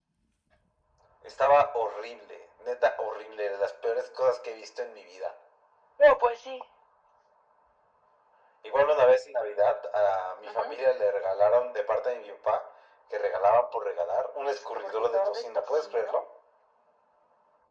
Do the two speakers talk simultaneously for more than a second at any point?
Yes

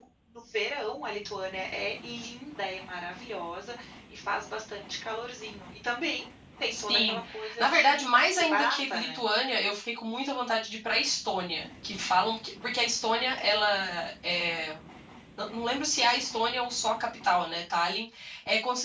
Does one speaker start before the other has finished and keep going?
Yes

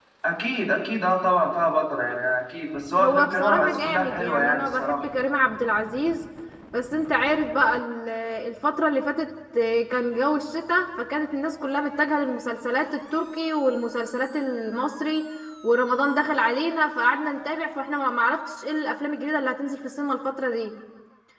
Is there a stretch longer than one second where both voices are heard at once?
Yes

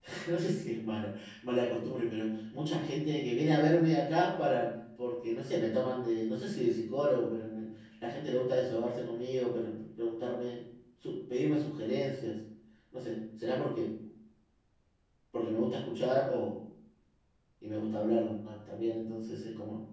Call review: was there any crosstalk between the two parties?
No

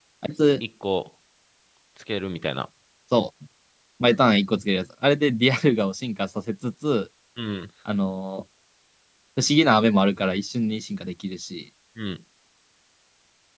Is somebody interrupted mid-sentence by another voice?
No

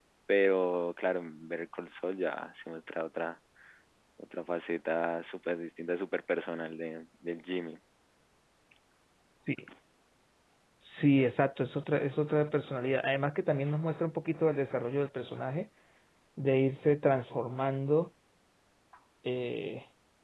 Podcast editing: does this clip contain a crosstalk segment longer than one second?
No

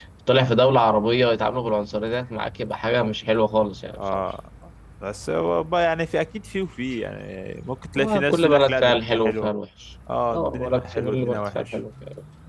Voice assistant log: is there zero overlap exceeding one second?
No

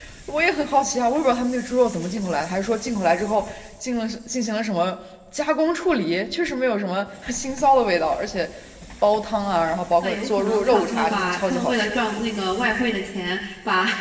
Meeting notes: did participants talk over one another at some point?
Yes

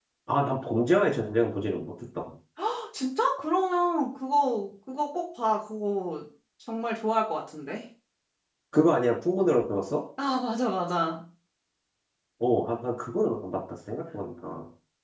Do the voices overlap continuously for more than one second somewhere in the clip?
No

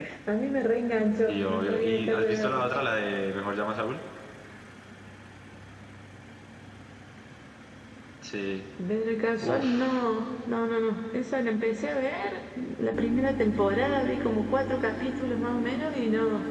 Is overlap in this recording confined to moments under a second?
No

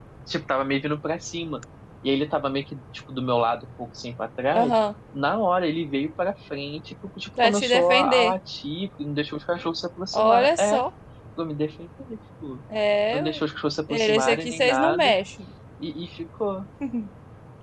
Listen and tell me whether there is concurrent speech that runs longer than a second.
Yes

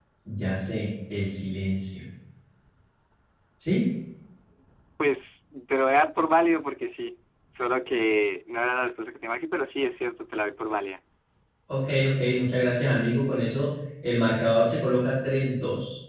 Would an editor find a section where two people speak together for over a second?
No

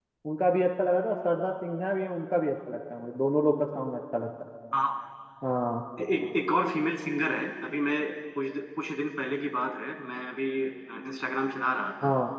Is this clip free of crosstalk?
Yes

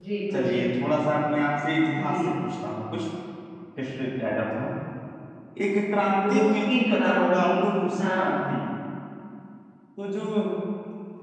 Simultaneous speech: Yes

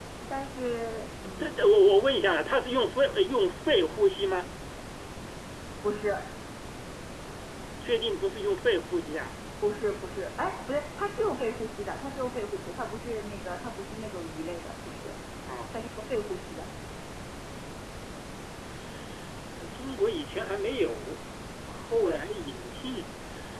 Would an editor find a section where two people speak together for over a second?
No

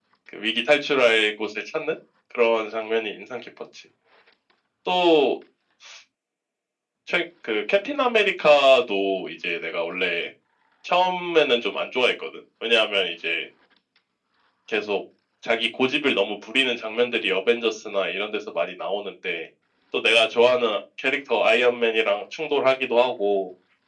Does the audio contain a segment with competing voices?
No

